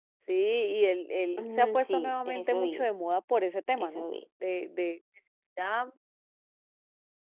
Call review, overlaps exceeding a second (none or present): present